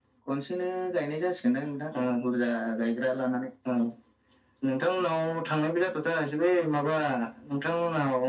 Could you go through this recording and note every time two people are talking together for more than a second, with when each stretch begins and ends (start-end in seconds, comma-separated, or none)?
none